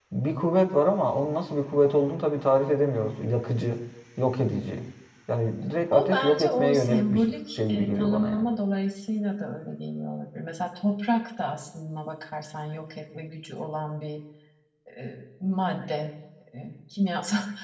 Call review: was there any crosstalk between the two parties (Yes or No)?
Yes